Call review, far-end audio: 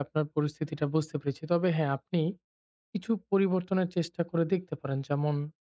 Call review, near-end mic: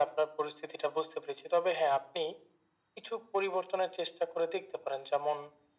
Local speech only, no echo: none

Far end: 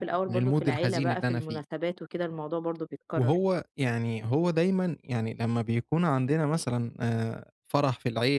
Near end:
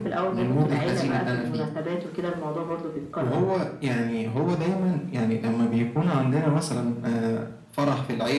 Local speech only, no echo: none

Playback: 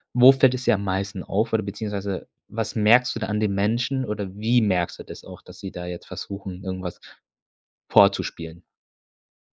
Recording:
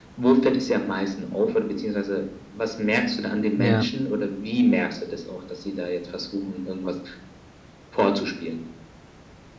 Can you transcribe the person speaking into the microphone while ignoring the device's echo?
Ja.

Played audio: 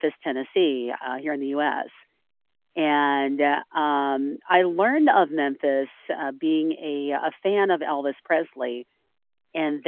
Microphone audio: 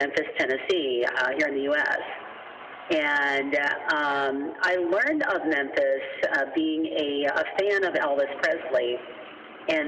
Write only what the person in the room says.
none

